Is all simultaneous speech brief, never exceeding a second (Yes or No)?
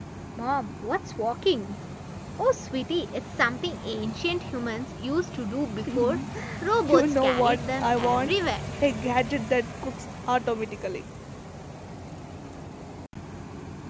No